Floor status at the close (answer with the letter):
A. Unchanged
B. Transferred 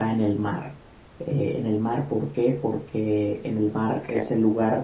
A